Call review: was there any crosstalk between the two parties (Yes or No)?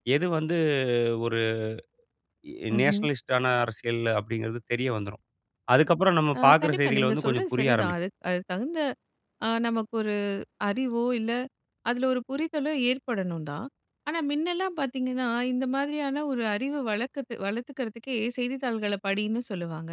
Yes